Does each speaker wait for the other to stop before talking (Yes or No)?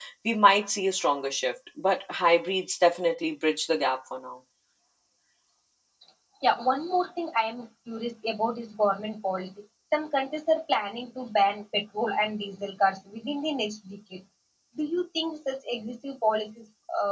Yes